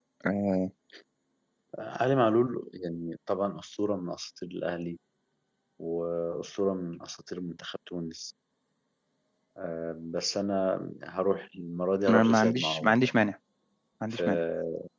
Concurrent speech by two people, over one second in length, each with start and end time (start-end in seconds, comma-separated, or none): 12.1-13.3